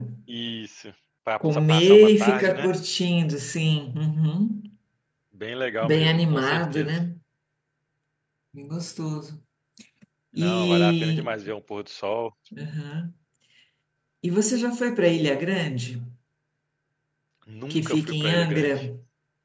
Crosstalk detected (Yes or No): Yes